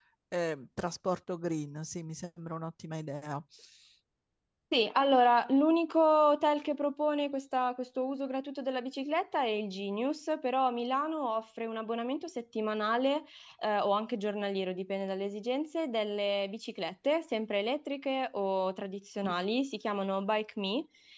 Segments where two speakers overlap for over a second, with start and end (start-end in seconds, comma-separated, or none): none